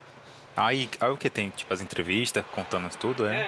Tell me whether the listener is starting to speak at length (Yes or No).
Yes